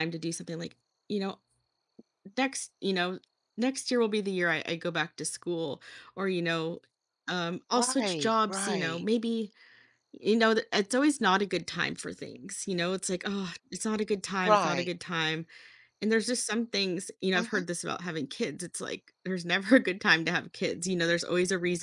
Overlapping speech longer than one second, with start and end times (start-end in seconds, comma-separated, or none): 7.8-9.0